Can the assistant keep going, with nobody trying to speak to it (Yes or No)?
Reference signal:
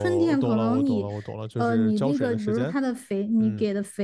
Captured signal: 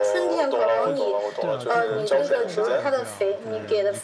No